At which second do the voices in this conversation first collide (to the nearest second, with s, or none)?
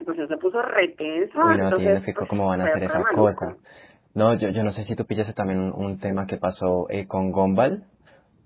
1 s